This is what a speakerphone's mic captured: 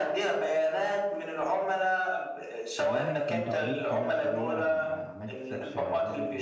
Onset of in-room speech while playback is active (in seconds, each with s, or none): 2.8 s